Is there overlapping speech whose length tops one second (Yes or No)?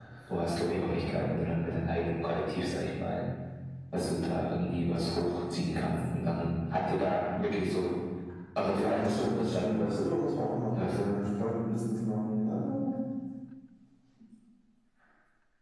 Yes